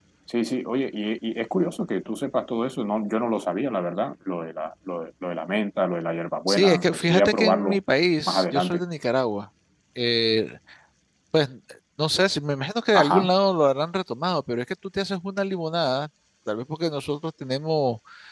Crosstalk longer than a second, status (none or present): present